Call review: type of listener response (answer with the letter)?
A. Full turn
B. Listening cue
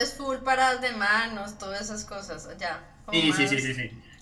A